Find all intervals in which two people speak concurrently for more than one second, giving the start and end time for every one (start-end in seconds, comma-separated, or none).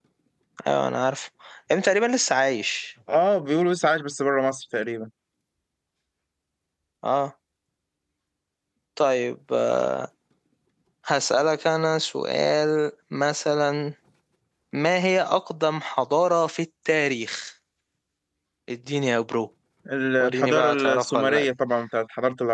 20.2-21.4